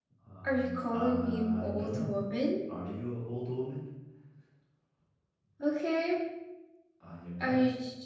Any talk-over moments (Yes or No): Yes